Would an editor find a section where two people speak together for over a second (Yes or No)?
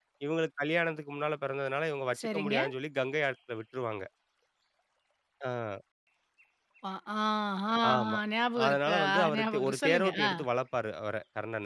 Yes